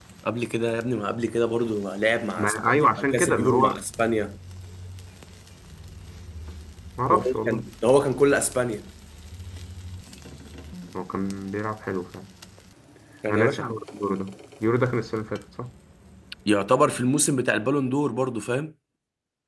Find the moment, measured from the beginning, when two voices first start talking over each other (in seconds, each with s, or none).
2.4 s